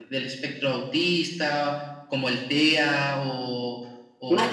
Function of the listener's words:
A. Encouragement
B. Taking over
B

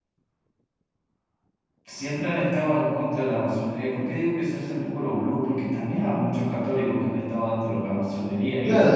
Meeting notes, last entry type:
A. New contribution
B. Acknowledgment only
A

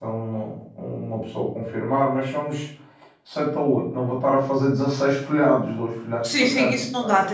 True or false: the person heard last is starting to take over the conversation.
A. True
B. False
A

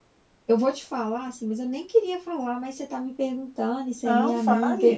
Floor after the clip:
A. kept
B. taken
A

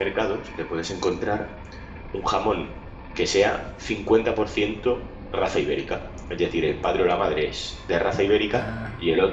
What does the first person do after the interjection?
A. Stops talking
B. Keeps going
B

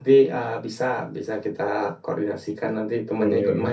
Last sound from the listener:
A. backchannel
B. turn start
A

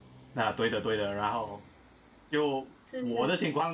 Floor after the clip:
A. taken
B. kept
B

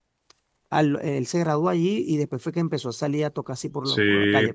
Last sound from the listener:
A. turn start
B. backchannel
A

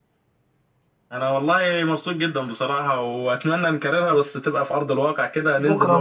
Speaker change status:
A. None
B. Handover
B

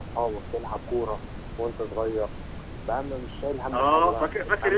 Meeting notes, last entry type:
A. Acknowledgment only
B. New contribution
B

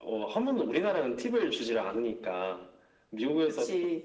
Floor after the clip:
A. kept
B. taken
A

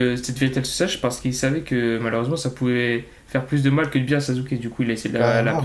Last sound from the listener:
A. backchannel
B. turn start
B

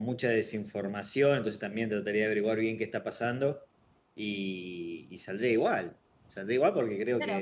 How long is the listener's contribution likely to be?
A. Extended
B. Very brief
A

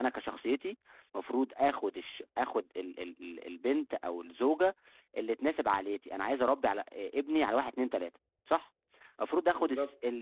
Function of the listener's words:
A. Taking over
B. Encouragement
B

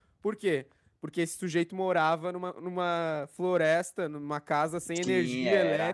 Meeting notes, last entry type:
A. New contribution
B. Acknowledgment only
A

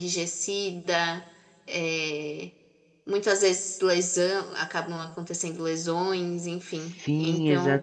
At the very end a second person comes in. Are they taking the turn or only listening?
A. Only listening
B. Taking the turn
B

